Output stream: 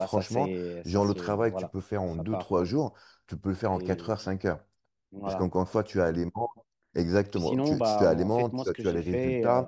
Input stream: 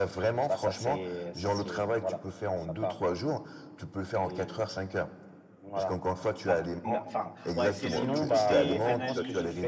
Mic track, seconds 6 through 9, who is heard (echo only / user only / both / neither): both